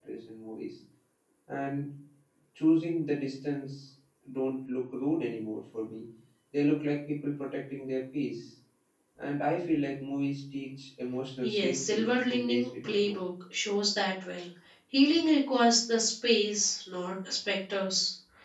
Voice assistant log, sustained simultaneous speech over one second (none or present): present